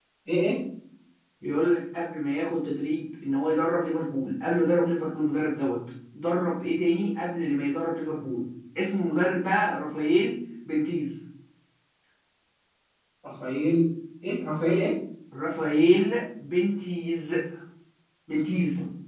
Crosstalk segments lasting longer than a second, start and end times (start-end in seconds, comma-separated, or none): none